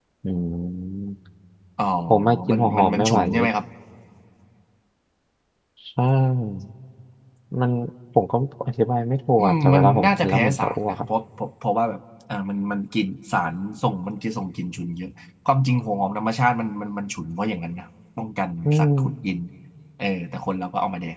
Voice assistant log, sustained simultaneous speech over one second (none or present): present